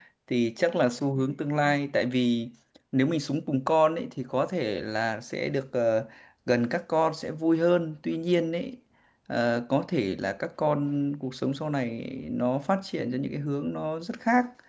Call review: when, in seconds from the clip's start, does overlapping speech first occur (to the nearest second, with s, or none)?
none